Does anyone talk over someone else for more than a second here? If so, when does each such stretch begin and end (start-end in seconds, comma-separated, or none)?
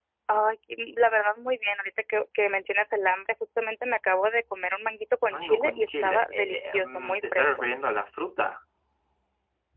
5.3-7.4